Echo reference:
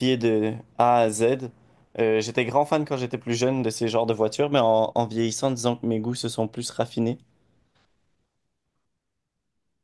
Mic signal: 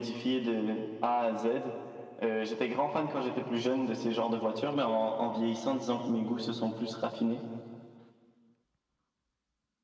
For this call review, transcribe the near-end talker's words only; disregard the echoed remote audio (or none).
none